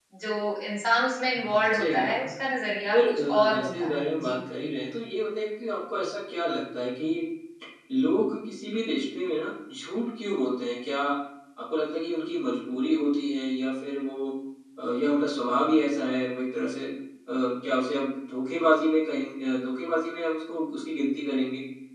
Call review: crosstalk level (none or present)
present